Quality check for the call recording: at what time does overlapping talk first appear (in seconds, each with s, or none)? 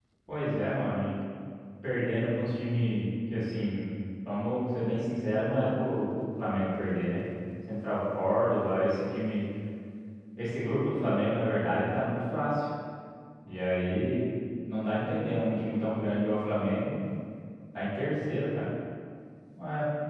none